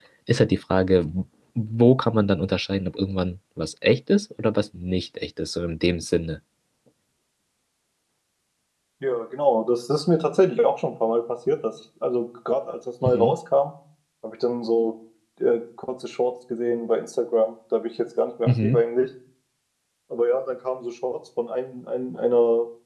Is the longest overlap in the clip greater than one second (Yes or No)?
No